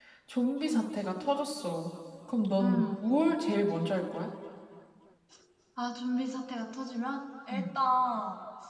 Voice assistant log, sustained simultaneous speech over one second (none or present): none